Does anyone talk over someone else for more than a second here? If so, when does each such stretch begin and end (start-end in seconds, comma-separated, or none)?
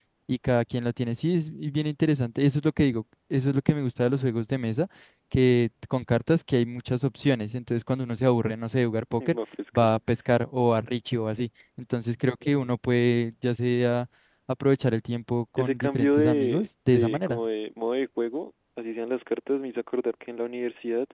15.6-17.4